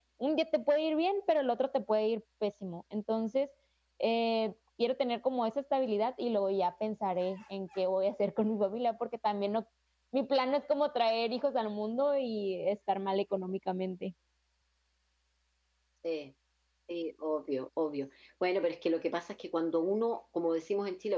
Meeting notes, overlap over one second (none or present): none